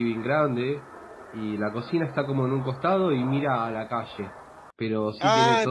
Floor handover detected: Yes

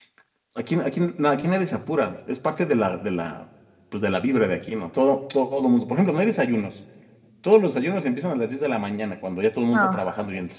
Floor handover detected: No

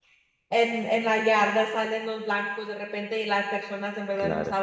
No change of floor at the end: Yes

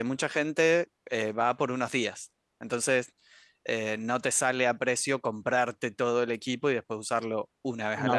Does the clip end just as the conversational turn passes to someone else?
Yes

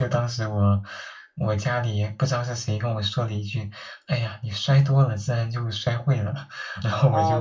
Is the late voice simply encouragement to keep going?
No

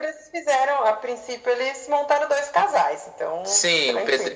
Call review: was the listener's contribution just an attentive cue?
No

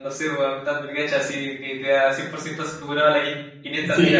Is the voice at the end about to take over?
Yes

